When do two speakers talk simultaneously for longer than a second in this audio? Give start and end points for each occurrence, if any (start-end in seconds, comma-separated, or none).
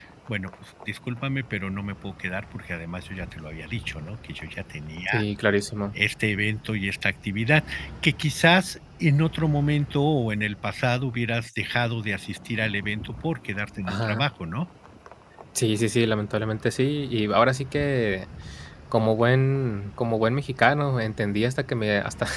none